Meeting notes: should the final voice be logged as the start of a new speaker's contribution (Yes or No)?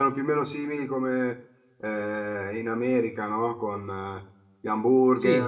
Yes